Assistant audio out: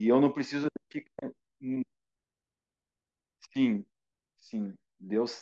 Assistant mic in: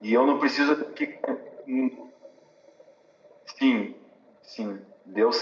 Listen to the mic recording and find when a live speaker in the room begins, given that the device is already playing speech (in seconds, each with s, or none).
none